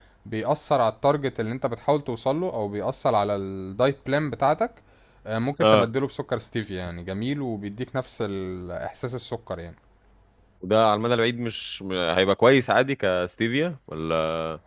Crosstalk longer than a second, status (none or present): none